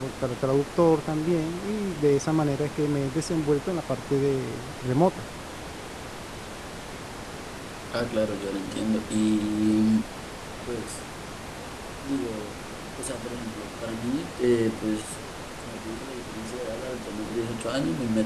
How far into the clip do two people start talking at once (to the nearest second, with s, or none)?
none